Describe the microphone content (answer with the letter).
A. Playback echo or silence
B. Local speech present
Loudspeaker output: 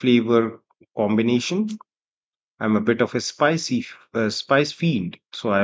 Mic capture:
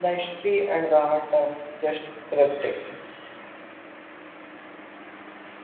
B